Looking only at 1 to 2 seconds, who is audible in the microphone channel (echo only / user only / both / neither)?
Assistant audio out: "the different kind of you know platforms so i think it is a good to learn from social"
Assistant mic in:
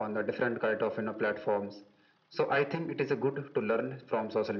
echo only